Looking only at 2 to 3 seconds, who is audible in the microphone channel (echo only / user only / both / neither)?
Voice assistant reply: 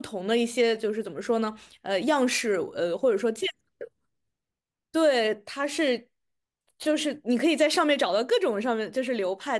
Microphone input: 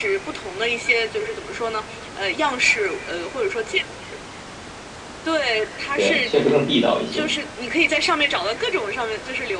echo only